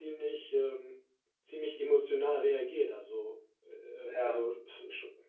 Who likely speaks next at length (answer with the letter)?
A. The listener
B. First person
B